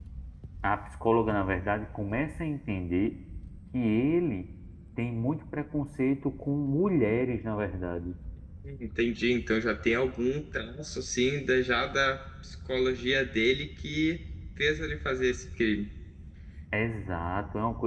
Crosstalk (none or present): none